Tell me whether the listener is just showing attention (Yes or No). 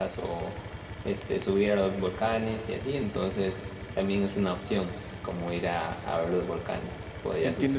No